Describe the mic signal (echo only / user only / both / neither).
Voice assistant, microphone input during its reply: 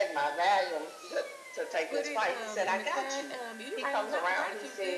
both